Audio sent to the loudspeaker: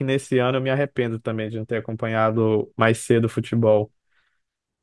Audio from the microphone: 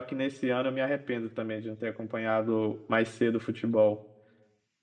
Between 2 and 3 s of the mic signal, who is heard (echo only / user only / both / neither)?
echo only